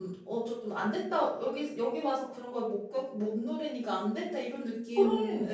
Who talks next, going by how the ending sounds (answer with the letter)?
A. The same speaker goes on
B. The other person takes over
A